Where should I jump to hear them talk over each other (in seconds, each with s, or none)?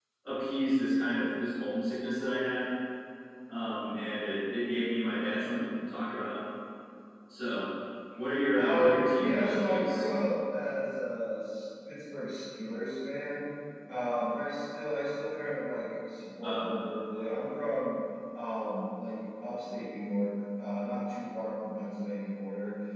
8.6 s